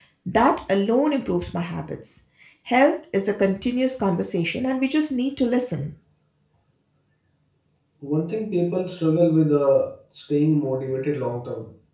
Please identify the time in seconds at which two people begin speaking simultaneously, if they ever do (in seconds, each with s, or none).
none